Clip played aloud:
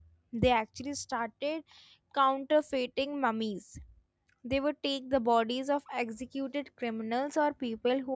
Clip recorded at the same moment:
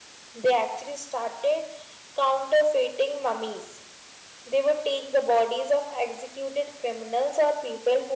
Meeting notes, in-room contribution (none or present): none